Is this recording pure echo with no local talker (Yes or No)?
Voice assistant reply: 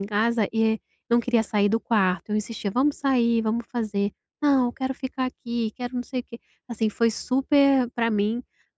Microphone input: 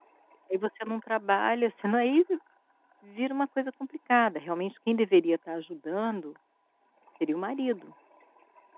No